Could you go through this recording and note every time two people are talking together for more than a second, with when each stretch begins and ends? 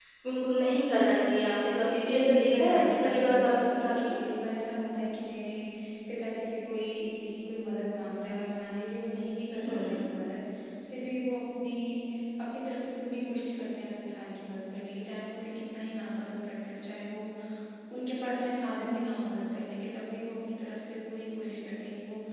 1.8-4.2

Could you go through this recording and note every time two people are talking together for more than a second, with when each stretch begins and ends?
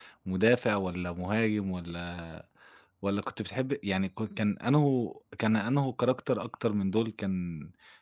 none

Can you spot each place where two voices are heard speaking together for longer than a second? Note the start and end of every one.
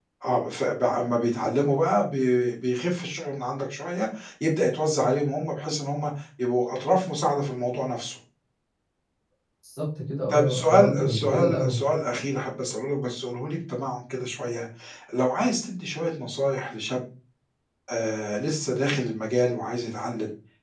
10.3-11.8

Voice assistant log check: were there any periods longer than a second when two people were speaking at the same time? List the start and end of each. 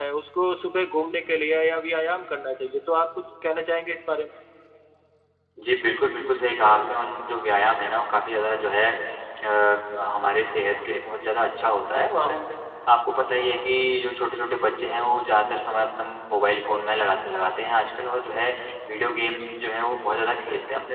none

